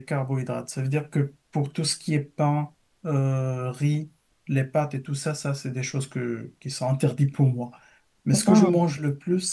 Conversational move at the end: listening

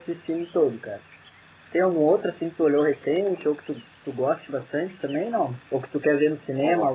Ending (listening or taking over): listening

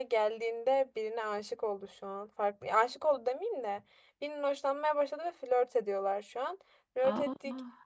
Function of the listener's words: listening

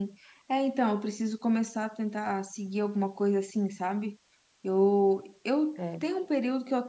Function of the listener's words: listening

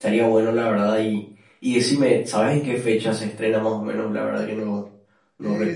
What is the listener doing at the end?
taking over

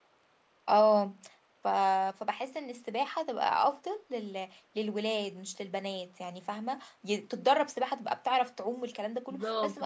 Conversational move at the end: taking over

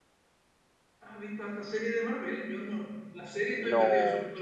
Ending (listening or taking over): taking over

